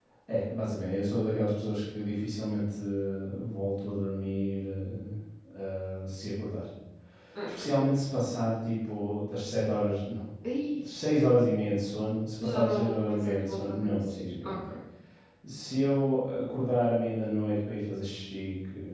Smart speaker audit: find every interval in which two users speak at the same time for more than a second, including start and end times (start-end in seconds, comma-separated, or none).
12.4-14.6